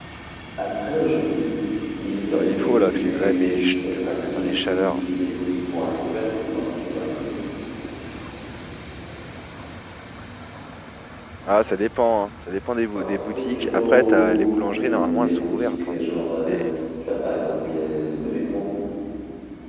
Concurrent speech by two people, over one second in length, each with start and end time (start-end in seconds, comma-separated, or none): 2.3-5.0, 12.9-14.4, 14.7-15.9